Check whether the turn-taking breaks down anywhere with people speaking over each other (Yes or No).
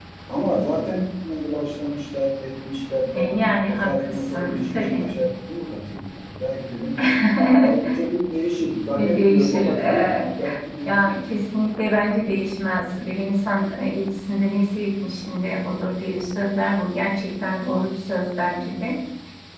Yes